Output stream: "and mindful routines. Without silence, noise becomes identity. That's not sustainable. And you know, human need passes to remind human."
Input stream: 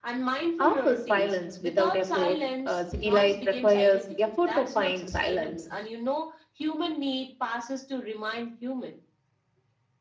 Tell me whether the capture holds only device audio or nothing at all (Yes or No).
No